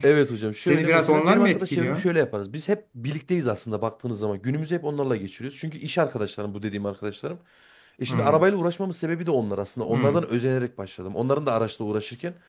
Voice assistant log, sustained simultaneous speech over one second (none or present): present